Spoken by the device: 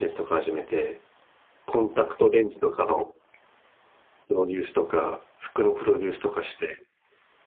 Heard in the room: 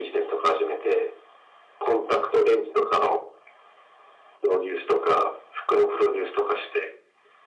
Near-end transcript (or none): none